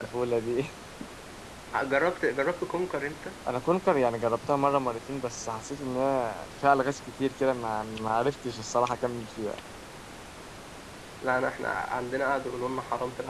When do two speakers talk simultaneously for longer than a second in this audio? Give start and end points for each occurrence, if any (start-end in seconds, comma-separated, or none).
none